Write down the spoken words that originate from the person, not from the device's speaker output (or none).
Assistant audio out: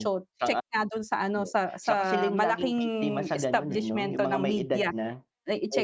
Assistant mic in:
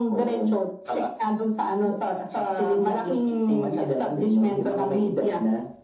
none